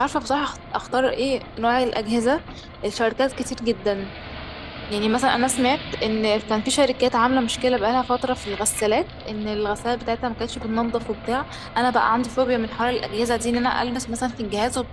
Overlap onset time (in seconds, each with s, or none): none